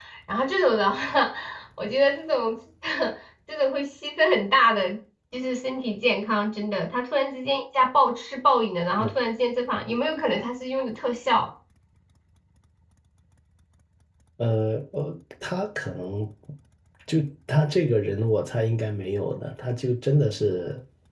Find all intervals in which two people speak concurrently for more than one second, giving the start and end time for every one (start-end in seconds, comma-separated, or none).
none